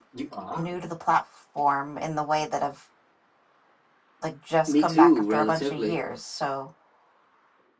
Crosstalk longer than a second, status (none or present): present